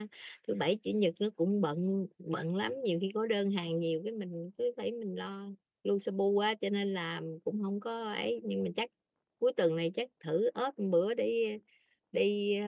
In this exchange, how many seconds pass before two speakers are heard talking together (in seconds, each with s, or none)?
none